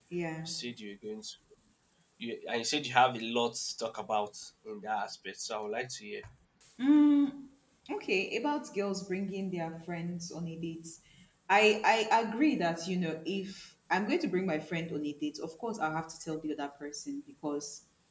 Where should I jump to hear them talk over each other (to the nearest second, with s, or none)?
none